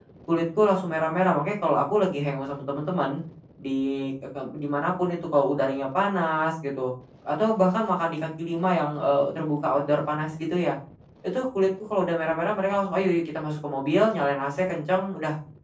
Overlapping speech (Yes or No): No